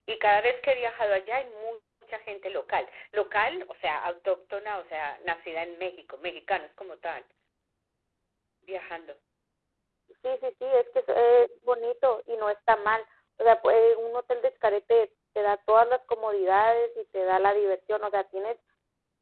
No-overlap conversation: Yes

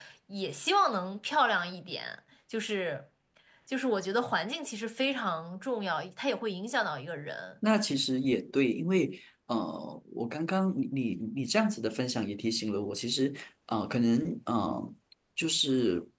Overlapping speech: No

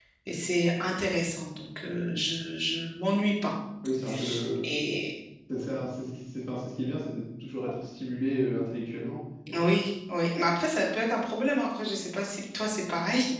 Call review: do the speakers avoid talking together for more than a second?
Yes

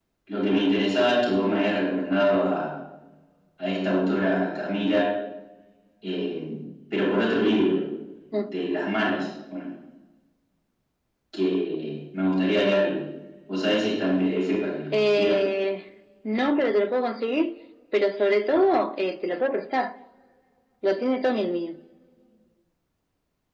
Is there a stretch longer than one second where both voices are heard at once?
No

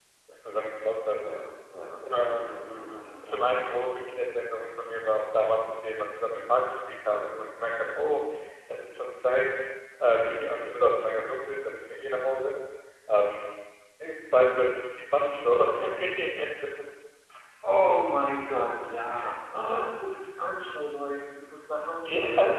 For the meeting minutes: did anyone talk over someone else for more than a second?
No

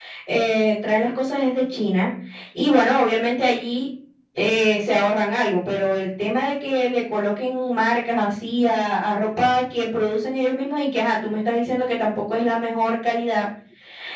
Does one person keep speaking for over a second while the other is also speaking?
No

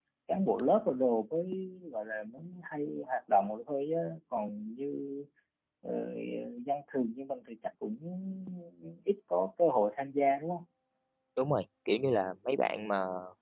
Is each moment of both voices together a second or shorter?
Yes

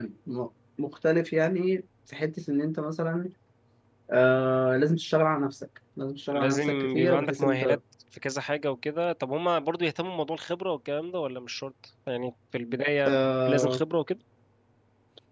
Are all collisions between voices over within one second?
No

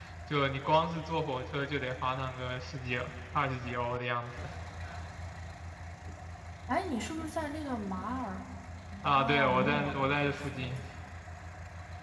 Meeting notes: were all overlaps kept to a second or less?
No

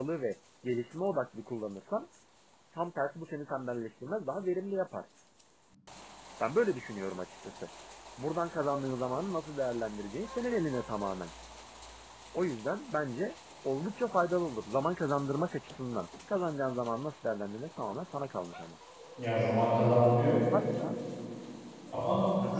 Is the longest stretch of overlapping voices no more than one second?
Yes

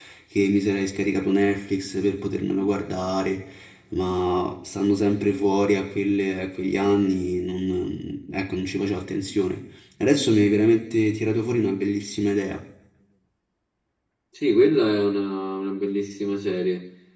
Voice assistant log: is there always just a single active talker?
Yes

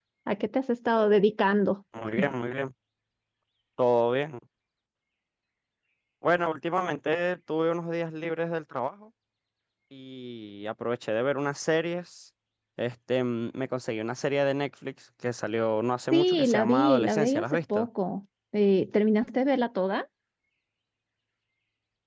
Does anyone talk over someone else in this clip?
Yes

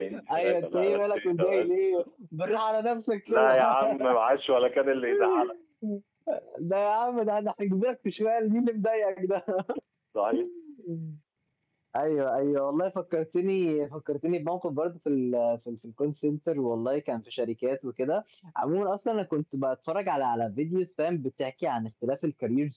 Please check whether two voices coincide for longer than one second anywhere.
Yes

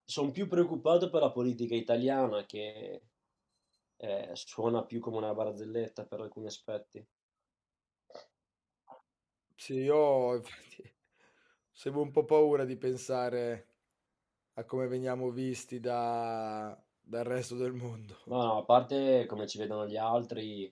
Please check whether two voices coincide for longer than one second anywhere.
No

